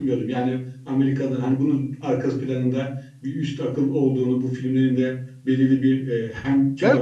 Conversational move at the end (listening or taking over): taking over